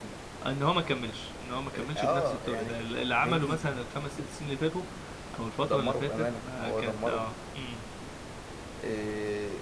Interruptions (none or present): present